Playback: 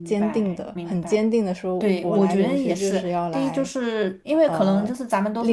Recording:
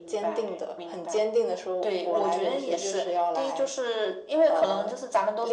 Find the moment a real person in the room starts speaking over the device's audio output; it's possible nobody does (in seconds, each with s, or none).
none